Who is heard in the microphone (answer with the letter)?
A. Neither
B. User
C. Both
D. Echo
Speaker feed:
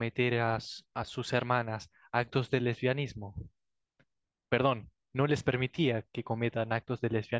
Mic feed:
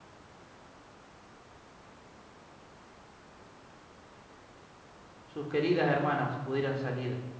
B